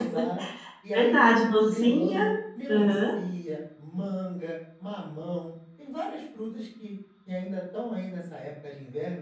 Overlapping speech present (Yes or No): Yes